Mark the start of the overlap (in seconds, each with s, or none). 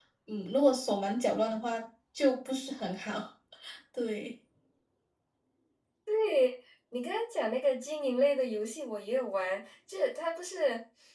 none